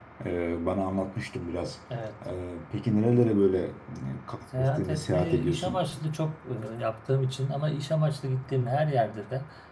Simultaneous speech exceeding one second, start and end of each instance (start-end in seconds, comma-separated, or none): 4.5-5.8